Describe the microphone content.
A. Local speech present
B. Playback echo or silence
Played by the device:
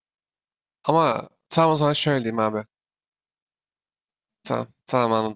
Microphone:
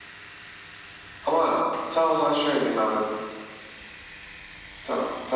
B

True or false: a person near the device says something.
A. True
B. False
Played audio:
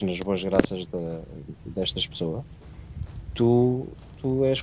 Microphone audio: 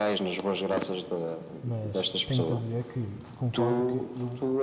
A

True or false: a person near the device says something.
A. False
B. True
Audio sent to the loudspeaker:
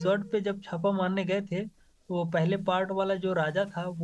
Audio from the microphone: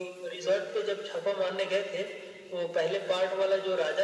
A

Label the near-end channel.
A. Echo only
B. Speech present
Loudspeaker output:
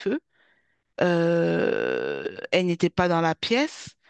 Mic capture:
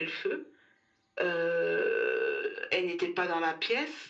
A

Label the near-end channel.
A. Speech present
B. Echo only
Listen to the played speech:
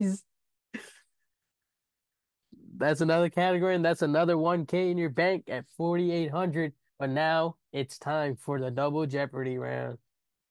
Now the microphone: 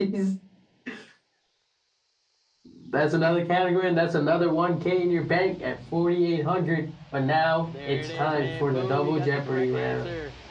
A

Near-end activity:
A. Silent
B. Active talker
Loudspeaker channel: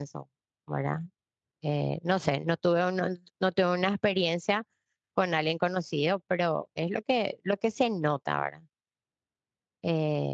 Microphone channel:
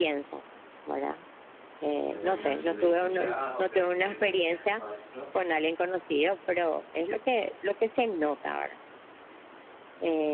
B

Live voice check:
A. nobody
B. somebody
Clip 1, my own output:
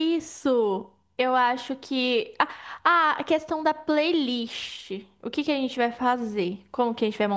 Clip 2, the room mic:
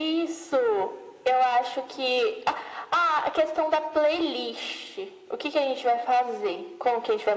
A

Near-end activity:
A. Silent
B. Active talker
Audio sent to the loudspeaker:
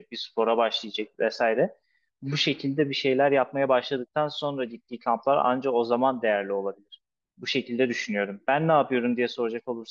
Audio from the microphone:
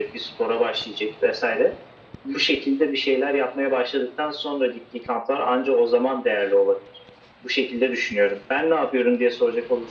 A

